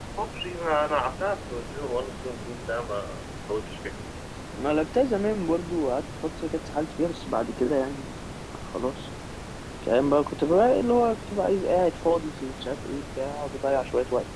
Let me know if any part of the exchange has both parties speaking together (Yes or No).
No